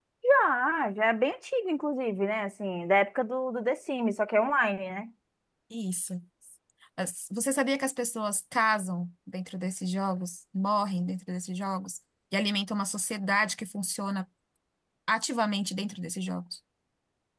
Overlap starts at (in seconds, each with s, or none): none